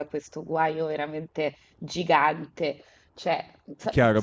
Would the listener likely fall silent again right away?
No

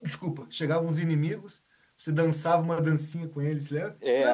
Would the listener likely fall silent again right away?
No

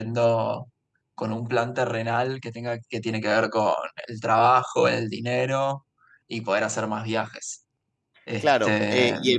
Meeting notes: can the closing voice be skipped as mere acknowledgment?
No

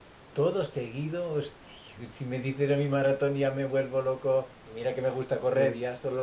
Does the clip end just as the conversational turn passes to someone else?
No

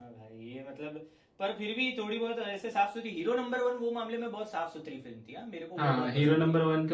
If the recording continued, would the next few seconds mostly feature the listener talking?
Yes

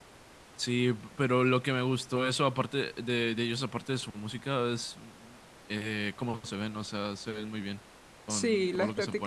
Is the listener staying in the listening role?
No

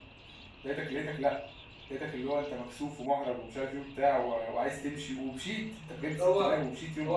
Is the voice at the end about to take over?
Yes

